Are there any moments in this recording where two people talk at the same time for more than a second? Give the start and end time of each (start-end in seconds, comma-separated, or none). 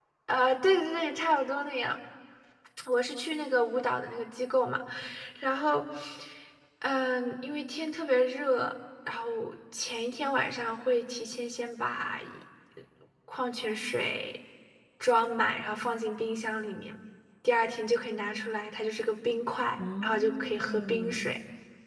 19.8-21.3